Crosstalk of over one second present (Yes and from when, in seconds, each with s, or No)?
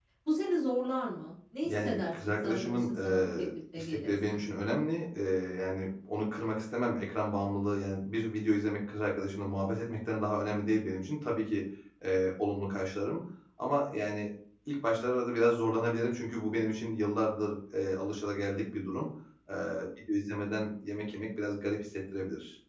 Yes, from 1.6 s